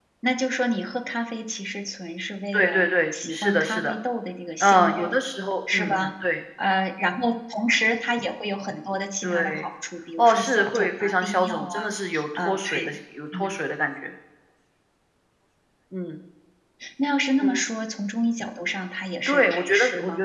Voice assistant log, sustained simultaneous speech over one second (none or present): present